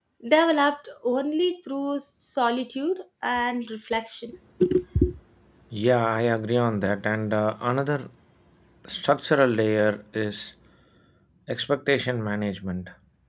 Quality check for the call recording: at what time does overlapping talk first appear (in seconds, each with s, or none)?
none